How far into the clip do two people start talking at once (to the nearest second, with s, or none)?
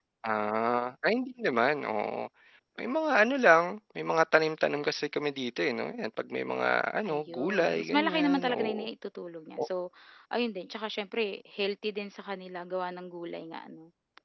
7 s